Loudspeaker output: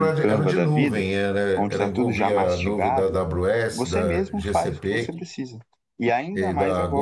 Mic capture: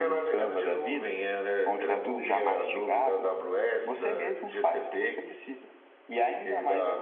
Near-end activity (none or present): none